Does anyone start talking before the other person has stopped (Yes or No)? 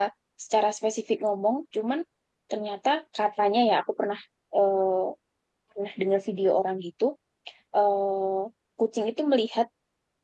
No